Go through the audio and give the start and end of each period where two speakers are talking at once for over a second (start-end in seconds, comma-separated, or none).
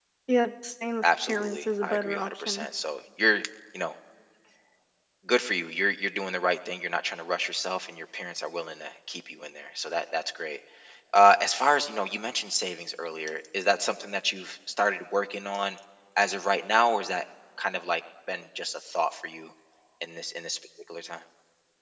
1.0-2.7